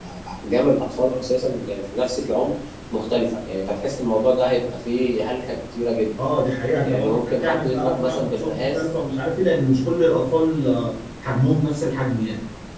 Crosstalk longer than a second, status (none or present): present